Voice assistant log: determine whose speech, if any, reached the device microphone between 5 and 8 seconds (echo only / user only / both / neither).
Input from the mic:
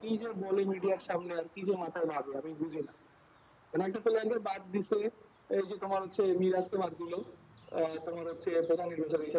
echo only